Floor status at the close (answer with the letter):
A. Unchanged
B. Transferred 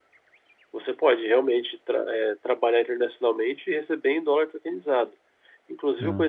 A